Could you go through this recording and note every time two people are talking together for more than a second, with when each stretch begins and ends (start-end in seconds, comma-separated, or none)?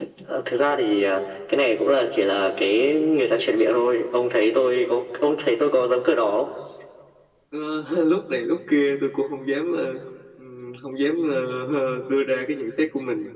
none